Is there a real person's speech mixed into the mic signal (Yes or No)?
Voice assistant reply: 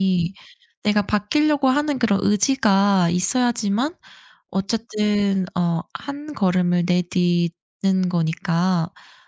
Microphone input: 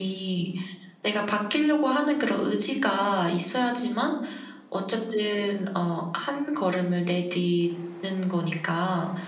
No